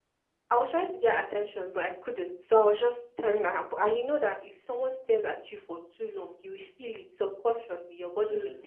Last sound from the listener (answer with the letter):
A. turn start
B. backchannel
B